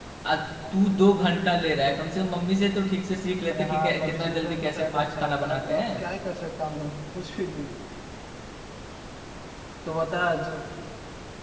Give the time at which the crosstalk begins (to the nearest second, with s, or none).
4 s